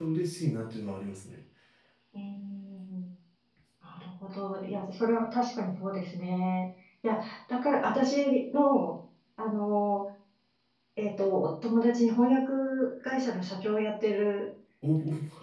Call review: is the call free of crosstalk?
Yes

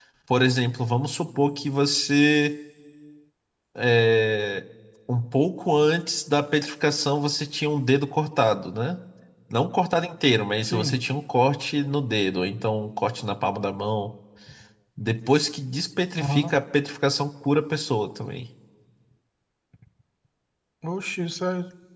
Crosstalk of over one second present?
No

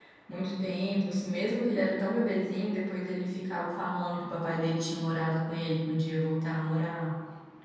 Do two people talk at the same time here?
No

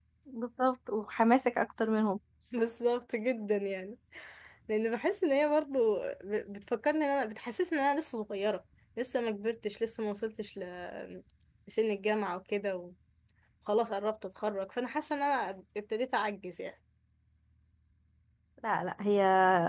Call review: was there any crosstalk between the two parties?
No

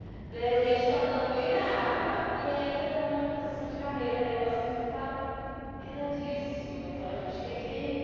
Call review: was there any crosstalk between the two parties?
No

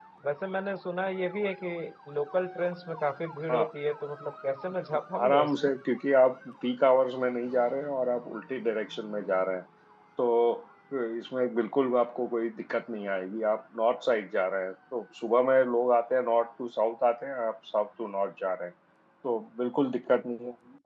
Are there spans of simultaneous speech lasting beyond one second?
No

